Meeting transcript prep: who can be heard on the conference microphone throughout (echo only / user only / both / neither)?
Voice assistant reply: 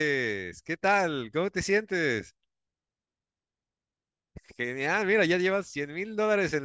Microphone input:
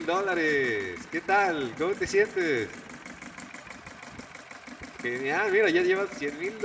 echo only